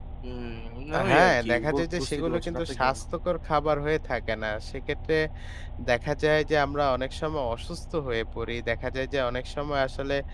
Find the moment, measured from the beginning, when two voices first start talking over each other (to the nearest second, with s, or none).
1 s